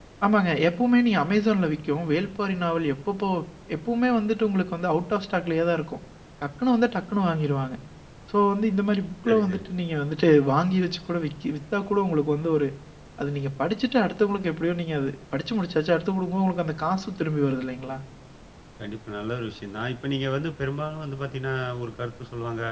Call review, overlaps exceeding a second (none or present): none